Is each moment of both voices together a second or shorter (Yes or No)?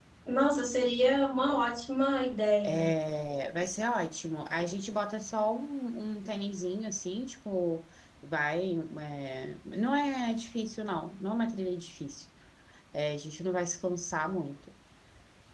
Yes